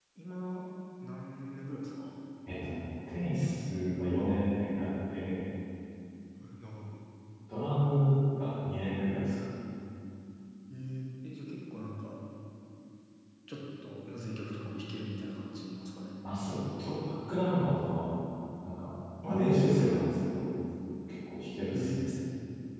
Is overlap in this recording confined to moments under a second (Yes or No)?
Yes